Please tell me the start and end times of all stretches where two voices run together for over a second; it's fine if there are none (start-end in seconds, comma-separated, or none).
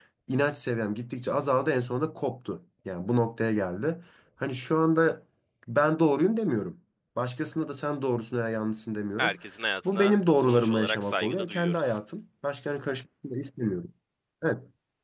9.8-12.0